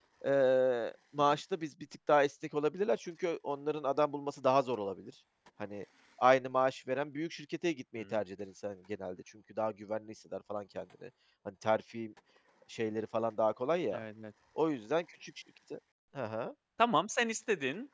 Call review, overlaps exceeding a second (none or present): none